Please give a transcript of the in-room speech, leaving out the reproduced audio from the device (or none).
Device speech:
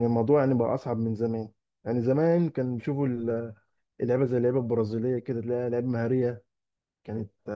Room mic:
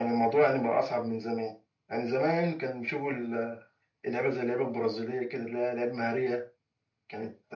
none